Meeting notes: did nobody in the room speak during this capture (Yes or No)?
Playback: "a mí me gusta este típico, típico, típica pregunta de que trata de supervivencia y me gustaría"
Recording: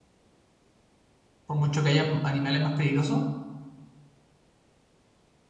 No